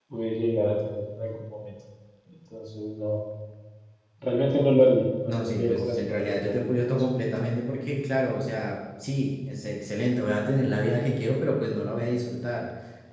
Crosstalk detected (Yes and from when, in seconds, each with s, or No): Yes, from 5.3 s